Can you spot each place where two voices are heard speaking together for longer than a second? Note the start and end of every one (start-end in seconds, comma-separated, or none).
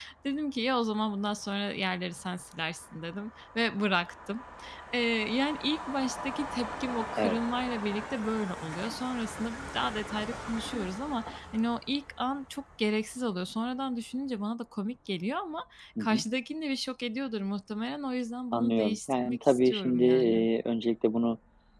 18.5-20.4